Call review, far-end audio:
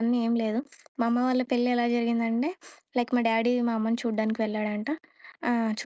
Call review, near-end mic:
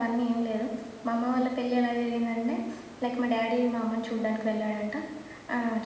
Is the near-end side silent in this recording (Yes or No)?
Yes